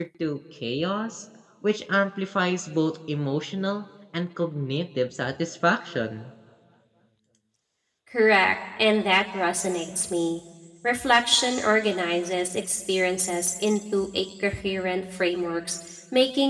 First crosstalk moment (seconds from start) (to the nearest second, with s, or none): none